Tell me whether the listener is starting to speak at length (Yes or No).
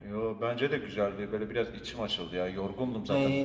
No